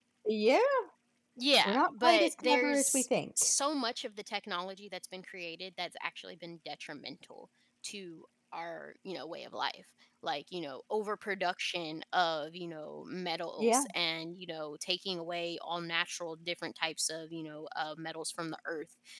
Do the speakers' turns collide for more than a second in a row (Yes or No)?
Yes